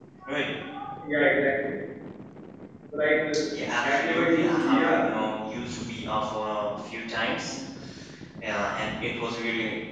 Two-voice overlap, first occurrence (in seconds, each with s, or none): 3.8 s